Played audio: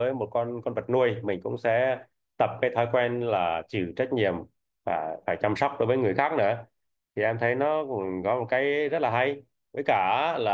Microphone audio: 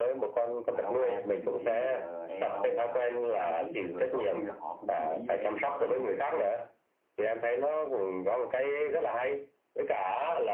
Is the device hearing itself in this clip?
Yes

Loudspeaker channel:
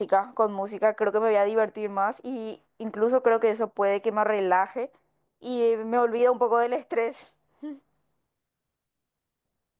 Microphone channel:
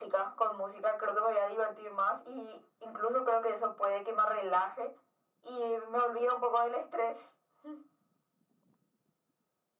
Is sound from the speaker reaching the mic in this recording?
Yes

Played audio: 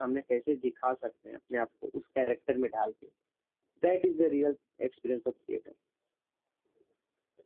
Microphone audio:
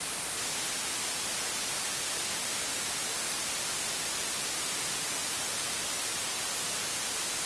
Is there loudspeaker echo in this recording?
No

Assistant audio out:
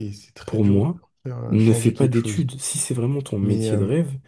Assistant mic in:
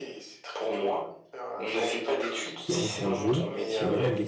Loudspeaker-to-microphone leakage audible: Yes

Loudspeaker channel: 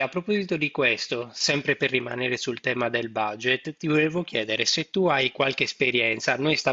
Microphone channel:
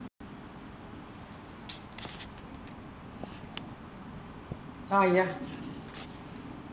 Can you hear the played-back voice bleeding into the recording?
No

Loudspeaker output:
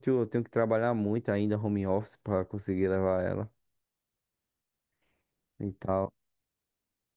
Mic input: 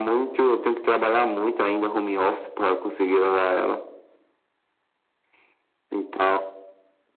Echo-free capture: No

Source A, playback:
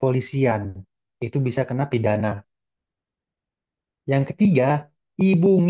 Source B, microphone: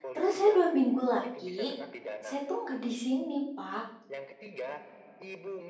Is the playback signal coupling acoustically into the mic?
Yes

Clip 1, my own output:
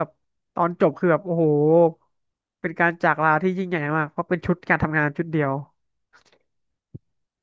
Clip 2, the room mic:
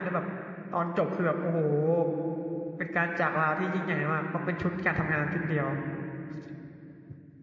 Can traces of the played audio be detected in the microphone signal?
Yes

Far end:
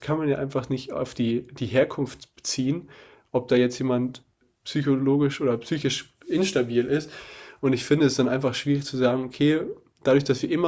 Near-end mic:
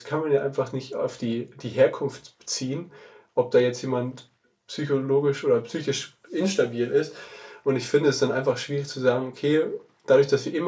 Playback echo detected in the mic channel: Yes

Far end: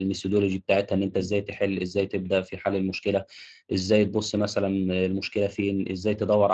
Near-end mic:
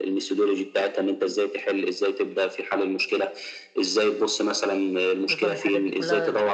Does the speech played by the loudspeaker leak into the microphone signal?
Yes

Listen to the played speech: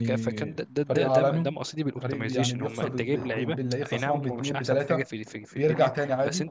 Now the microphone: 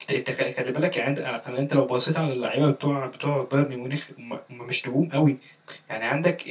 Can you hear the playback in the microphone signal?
No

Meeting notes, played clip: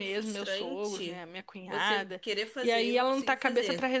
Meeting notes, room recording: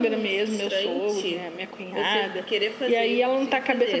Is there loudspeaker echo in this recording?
Yes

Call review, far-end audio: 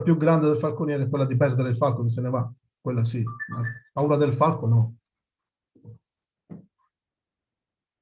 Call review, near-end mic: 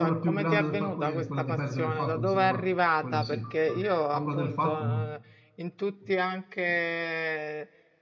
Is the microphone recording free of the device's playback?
No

